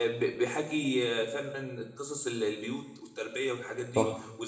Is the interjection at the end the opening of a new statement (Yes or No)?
No